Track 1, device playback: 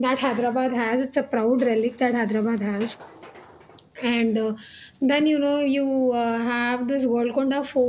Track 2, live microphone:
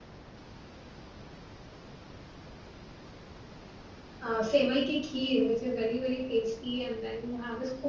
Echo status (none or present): none